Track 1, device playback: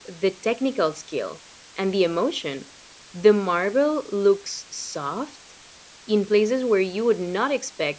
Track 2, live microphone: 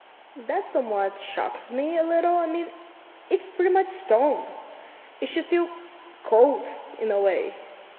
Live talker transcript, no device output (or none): That somewhat shocks me a little. I mean, it's pretty much stone. It should feel cold in a way.